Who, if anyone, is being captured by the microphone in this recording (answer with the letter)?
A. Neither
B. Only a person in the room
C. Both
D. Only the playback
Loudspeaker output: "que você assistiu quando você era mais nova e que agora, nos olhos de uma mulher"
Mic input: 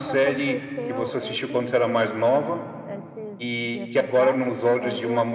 C